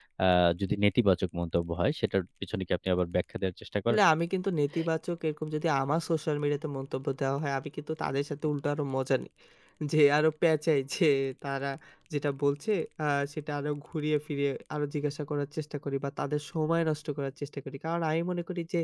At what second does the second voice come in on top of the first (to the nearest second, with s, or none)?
none